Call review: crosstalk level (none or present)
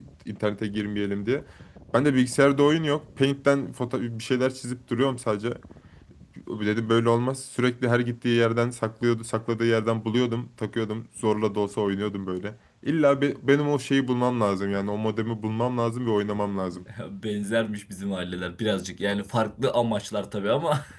none